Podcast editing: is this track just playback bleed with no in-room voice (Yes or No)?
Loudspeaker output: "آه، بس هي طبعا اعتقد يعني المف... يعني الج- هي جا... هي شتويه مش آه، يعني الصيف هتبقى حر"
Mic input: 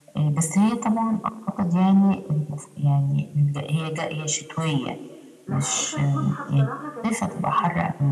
No